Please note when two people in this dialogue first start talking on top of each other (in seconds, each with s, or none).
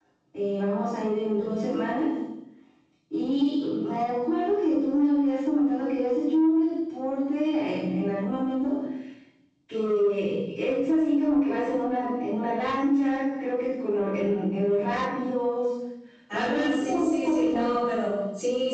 16.3 s